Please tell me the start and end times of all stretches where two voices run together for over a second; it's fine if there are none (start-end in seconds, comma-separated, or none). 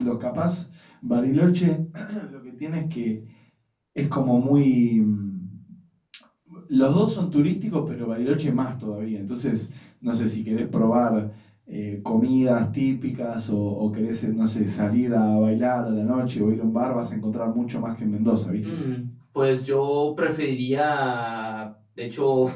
none